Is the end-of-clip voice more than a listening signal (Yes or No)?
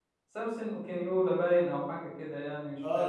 Yes